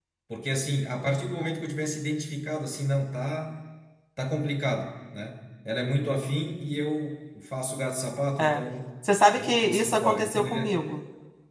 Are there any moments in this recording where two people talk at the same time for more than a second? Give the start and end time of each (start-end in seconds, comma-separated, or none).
9.3-10.7